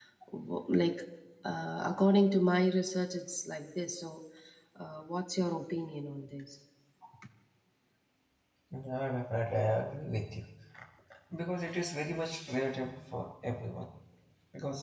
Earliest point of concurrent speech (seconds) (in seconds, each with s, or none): none